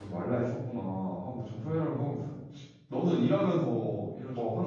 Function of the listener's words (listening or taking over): listening